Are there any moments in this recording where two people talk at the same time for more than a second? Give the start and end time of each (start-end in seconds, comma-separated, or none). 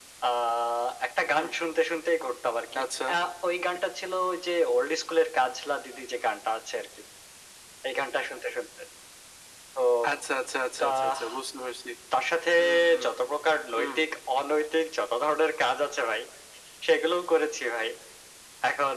none